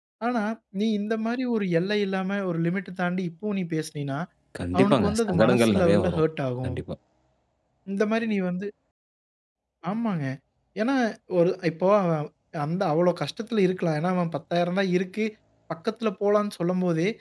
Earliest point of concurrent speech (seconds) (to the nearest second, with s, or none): 5 s